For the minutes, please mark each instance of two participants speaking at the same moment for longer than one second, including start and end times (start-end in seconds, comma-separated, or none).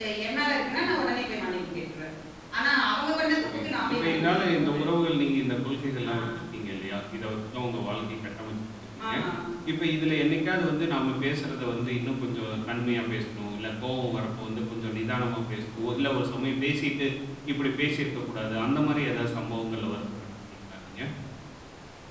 3.4-4.8